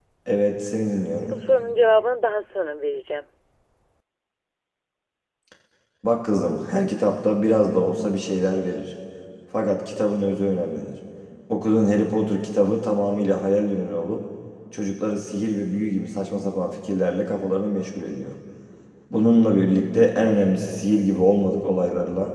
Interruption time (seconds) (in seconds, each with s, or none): none